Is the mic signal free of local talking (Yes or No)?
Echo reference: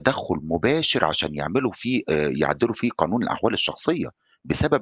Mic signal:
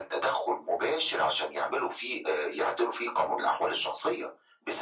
Yes